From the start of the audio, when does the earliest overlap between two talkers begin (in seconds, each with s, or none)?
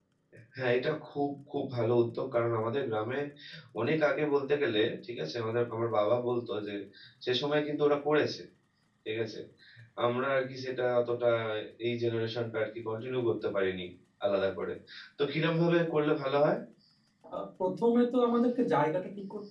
none